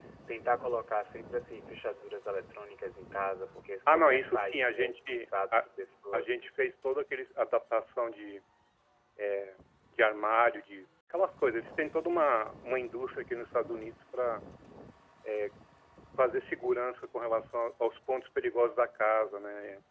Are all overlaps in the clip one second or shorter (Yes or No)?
No